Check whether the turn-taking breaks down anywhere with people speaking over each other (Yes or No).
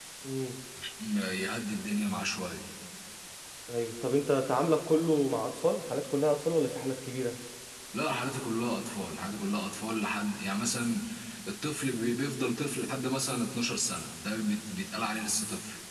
No